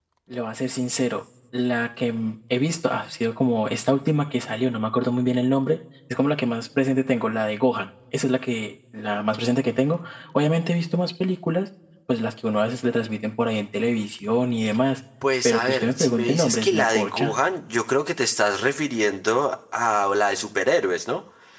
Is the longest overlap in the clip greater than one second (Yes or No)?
Yes